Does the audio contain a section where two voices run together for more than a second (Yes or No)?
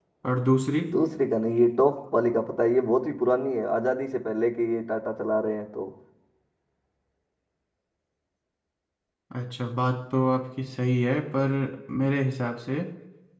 No